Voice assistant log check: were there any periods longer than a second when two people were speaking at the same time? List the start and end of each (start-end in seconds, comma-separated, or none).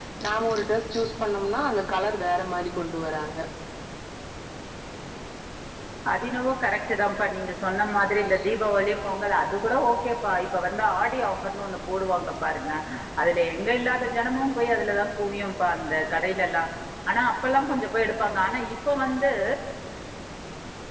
none